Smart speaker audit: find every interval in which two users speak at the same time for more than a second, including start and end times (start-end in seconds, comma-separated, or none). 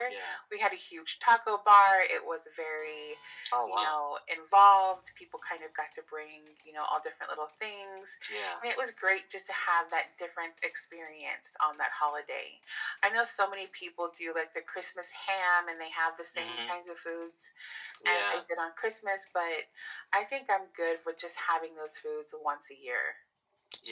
none